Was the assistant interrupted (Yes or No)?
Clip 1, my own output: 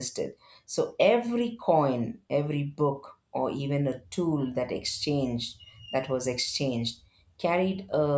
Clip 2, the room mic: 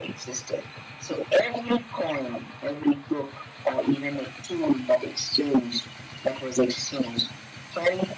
No